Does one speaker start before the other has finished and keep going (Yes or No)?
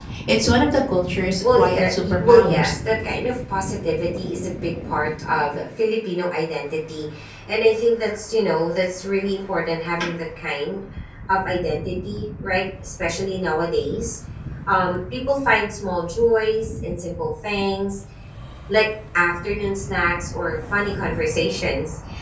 Yes